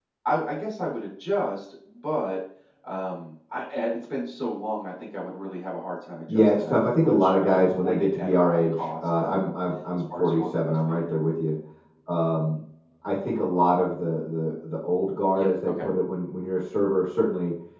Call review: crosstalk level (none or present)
present